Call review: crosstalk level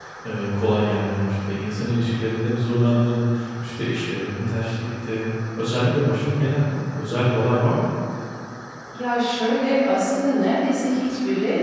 none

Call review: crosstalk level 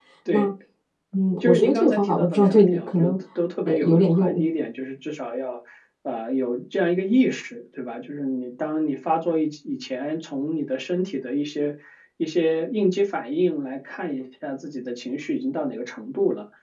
present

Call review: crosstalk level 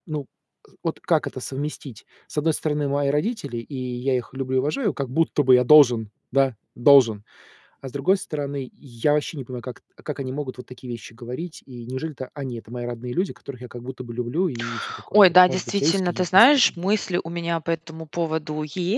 present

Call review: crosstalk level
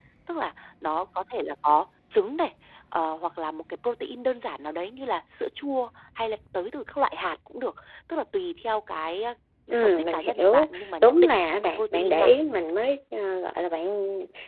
present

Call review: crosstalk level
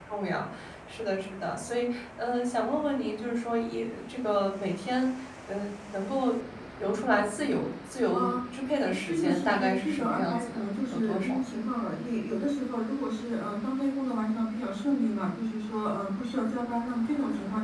present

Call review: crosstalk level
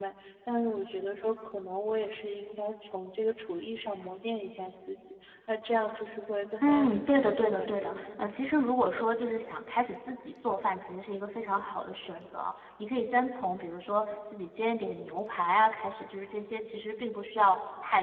present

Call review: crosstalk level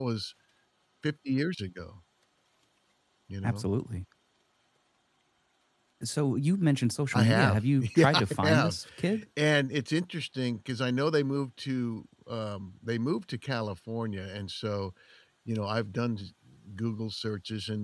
present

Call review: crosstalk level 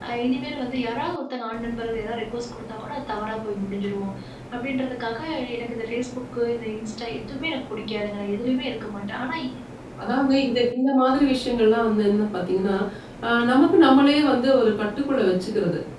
none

